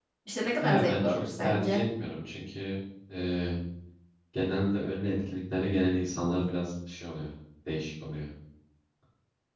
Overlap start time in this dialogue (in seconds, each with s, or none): 0.6 s